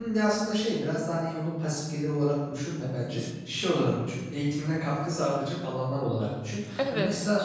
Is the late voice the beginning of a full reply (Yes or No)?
No